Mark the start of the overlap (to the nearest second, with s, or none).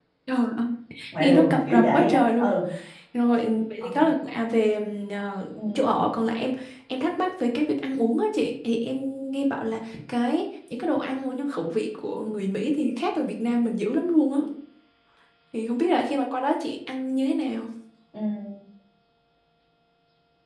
1 s